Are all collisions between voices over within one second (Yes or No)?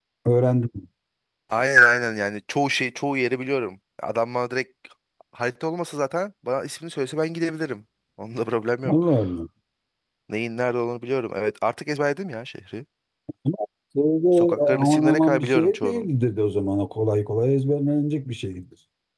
No